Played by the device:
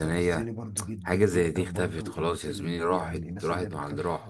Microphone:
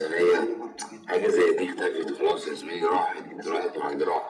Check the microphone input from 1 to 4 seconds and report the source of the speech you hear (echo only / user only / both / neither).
echo only